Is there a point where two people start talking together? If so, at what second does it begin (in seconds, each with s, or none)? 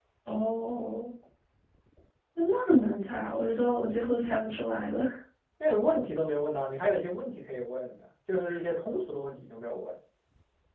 none